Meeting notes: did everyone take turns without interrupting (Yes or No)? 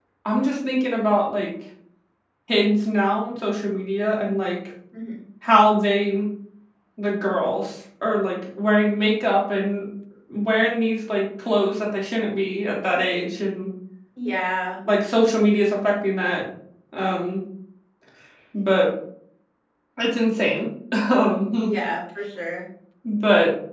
Yes